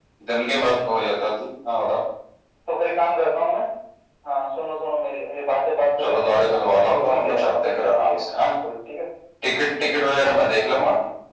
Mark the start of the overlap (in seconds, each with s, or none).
6.0 s